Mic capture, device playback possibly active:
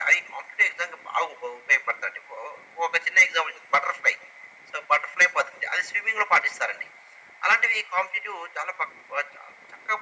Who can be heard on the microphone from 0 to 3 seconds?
echo only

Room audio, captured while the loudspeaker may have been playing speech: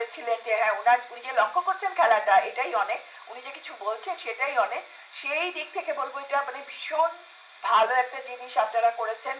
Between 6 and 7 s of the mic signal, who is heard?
echo only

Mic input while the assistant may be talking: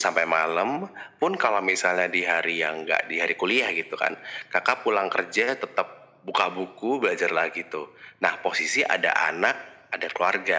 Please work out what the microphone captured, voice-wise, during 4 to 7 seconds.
echo only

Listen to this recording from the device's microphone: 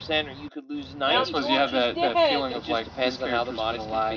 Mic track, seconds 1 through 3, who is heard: both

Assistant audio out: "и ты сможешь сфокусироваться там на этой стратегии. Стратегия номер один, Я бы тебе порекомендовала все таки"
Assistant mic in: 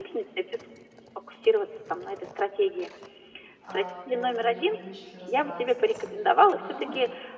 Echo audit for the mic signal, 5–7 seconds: both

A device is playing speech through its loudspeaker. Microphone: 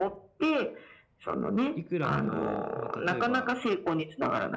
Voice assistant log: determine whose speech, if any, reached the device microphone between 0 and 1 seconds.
echo only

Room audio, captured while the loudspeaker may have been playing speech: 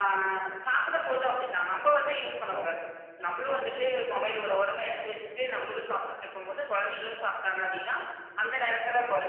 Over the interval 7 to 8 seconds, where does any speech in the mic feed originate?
echo only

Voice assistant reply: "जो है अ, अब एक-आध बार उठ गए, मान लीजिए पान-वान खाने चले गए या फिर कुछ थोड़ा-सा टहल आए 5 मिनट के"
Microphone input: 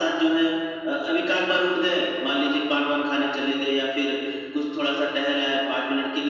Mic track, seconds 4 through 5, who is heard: echo only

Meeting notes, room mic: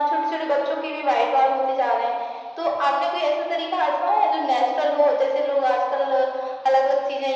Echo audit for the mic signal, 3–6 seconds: echo only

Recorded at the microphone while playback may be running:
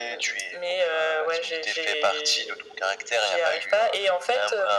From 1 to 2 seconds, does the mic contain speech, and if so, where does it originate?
echo only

